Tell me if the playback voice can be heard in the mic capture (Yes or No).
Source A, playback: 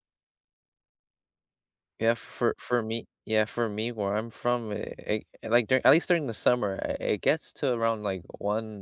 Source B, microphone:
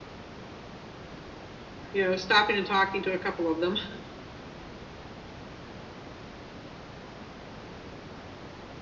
No